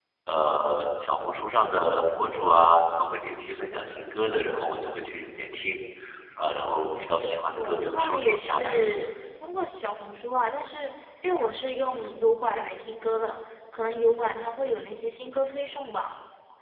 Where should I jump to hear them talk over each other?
7.6 s

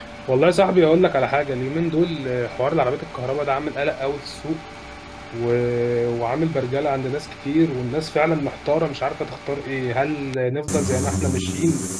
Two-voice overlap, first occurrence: none

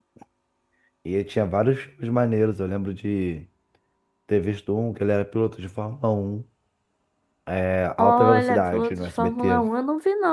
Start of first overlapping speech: 8.0 s

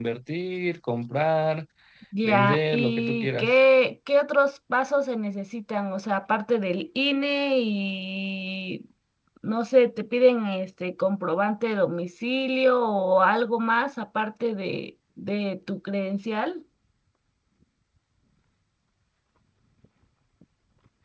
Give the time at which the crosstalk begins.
2.2 s

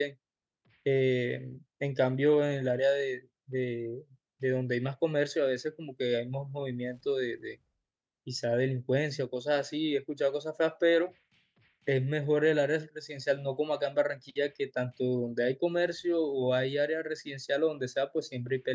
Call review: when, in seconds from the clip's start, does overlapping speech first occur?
none

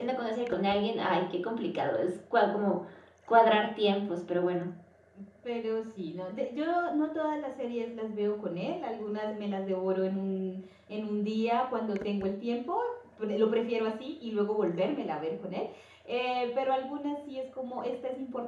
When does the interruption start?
none

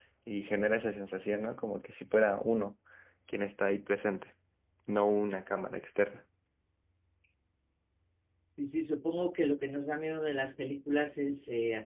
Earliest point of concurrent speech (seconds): none

